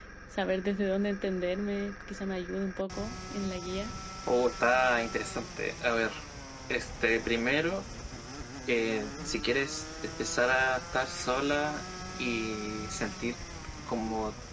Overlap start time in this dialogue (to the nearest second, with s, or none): none